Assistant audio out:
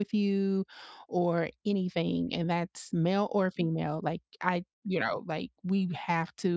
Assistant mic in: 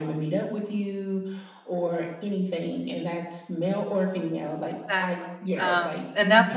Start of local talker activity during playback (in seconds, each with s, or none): 4.7 s